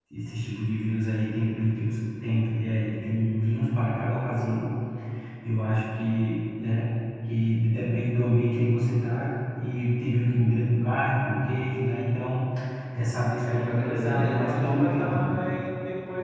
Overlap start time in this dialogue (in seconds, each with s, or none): 13.4 s